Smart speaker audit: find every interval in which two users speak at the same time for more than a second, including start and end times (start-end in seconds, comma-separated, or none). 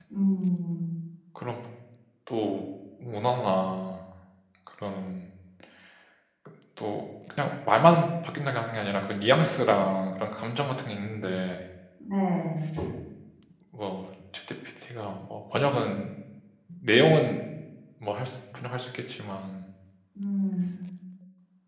none